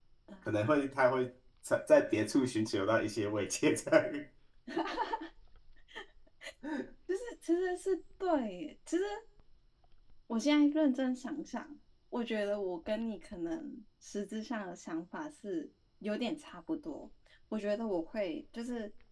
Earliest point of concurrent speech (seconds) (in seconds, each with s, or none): none